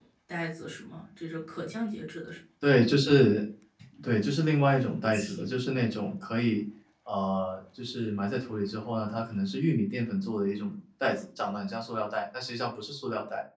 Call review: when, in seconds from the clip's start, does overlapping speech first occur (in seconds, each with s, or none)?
none